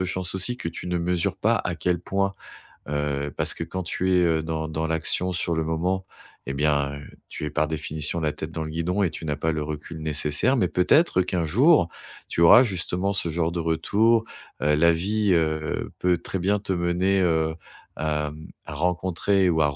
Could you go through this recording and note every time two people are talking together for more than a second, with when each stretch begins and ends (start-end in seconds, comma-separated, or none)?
none